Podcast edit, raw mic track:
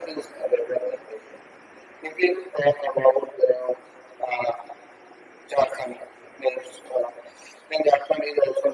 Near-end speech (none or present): none